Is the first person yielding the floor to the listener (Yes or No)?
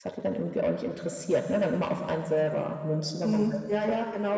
Yes